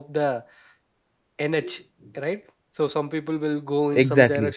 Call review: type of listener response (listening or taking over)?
listening